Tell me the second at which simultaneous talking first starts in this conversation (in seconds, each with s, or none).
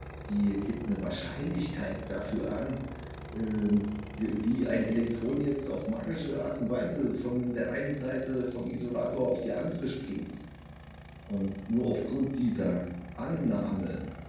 none